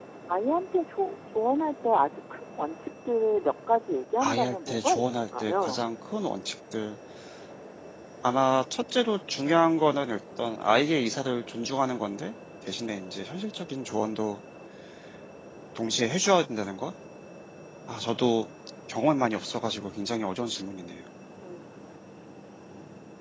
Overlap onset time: 4.2 s

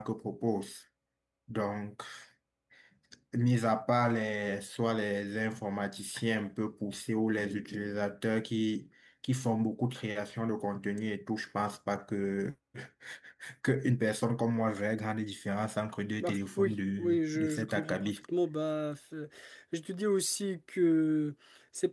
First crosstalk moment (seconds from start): 16.2 s

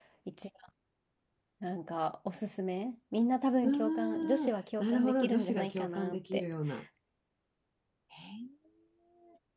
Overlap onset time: 3.6 s

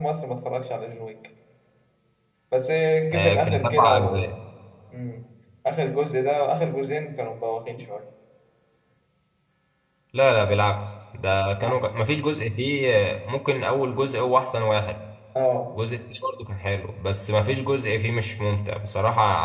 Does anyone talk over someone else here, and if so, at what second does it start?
3.1 s

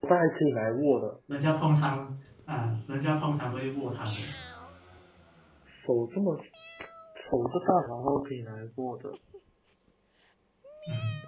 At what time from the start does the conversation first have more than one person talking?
none

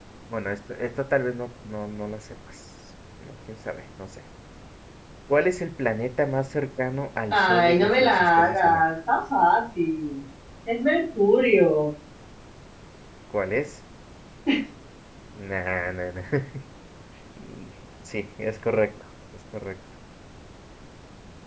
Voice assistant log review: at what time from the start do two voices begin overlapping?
7.3 s

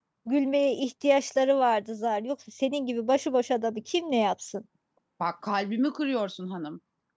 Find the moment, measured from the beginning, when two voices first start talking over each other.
none

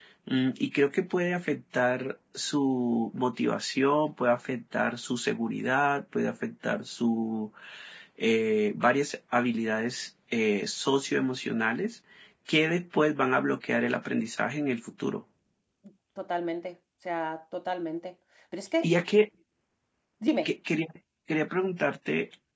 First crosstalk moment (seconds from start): none

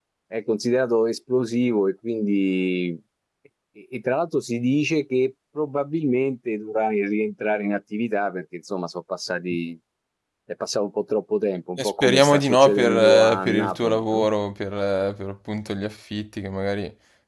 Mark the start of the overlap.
11.8 s

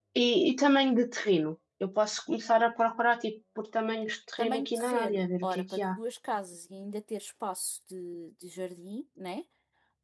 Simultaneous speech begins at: 4.4 s

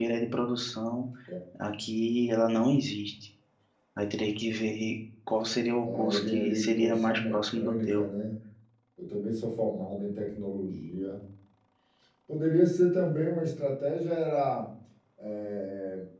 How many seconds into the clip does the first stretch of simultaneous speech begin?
5.8 s

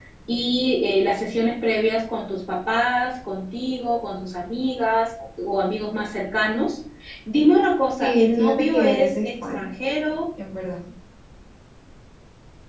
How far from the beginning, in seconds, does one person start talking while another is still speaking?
8.0 s

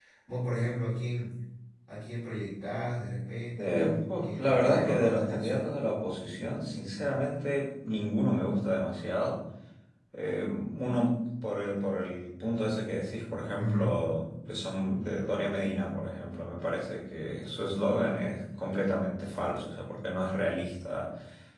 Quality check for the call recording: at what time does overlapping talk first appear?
3.6 s

